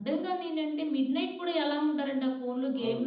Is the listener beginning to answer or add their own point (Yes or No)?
Yes